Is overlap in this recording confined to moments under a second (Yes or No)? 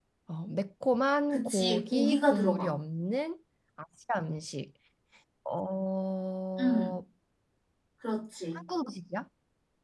No